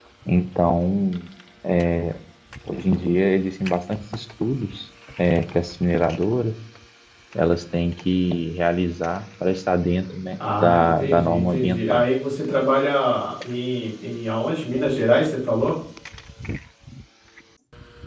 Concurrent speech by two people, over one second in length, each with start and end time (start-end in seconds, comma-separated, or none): 10.6-12.1